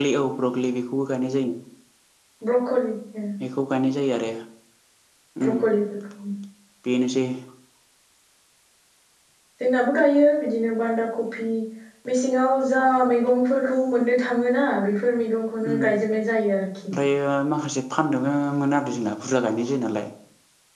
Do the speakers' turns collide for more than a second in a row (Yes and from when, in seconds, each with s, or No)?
No